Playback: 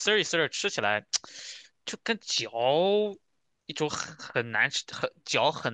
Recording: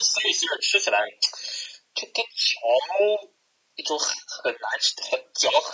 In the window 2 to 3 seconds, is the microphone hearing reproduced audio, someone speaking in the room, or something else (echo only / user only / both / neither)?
echo only